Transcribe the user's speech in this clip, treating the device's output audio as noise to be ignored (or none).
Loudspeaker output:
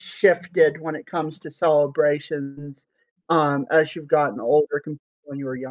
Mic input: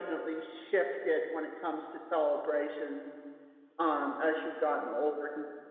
none